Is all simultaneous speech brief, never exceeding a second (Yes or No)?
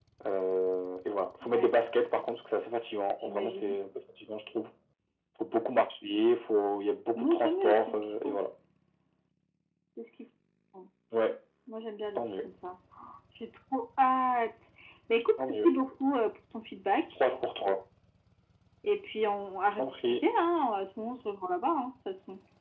No